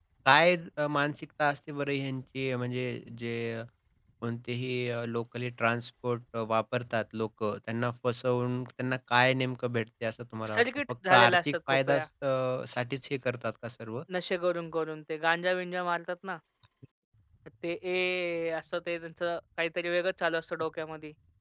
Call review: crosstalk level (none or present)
present